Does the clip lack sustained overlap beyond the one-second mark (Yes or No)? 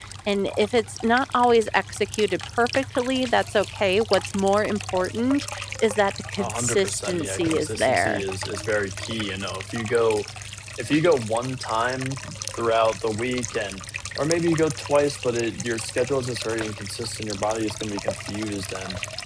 No